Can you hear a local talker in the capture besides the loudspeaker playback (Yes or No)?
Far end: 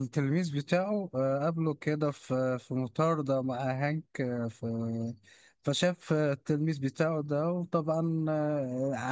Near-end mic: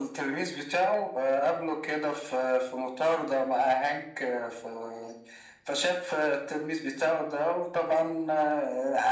No